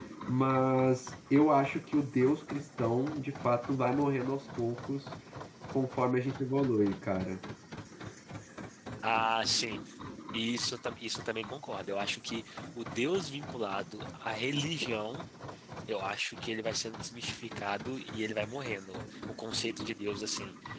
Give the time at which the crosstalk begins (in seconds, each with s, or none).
none